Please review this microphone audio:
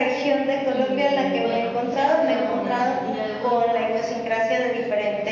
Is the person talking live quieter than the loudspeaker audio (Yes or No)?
Yes